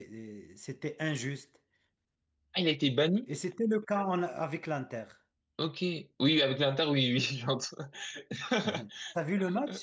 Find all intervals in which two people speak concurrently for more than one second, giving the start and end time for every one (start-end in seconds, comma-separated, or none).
none